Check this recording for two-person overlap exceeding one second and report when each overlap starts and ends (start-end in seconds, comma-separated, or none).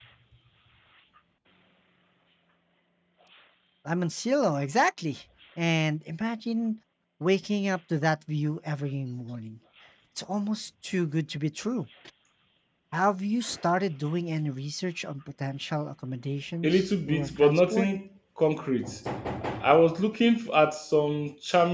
16.6-17.9